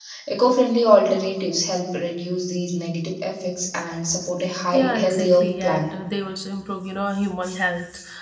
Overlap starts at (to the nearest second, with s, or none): 5 s